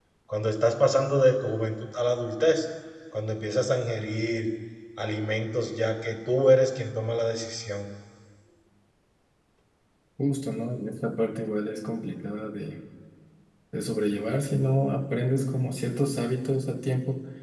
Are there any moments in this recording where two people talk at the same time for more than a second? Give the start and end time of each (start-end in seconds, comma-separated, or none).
none